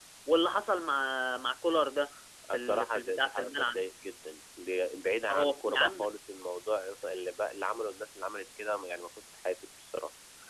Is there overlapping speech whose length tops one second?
Yes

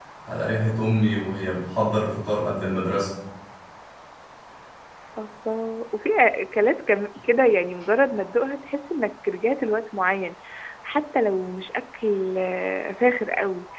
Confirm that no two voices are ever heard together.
Yes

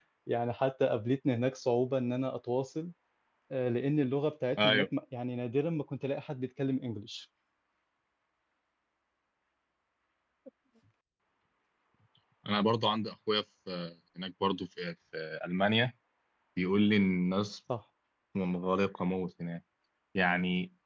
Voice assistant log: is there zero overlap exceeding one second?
Yes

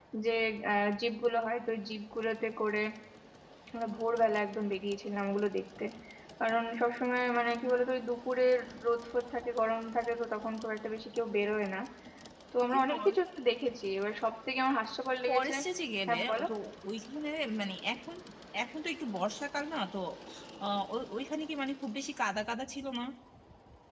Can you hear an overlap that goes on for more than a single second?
No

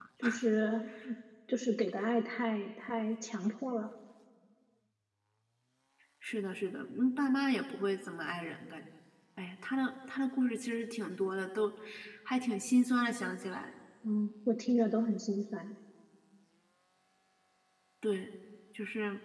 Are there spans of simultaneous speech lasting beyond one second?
No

